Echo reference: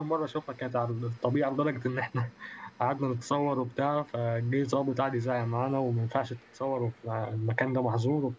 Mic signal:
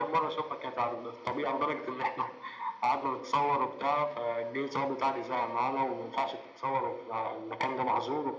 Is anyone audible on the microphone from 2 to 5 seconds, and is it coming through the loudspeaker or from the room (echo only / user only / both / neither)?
echo only